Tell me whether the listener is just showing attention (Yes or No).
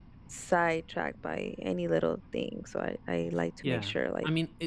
No